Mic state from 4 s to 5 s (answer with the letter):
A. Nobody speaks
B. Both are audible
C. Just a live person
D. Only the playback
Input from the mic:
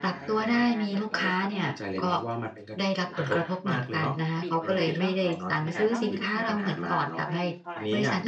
B